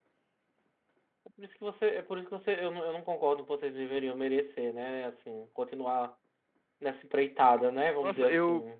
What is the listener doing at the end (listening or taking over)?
taking over